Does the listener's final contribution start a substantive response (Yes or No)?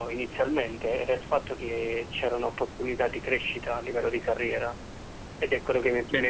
Yes